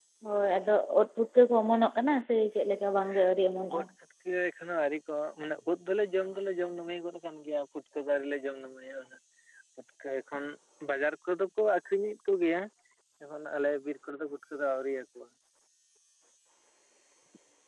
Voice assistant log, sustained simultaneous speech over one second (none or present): none